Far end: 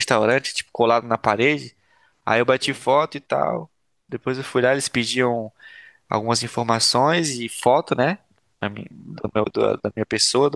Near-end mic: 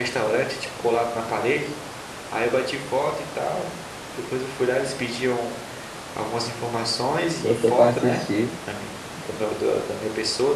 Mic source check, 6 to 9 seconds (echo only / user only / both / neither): both